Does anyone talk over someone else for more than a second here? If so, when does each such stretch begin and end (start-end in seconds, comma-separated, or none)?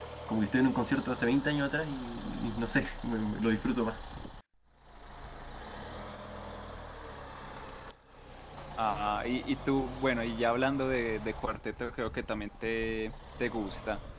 none